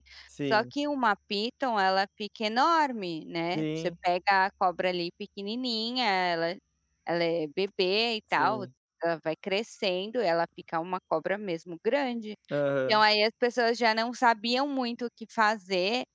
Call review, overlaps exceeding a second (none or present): none